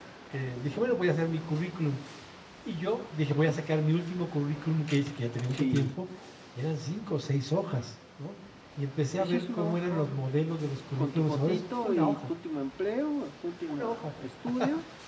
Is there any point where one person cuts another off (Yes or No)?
Yes